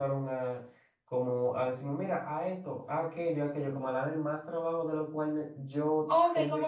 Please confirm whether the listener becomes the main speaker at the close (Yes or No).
Yes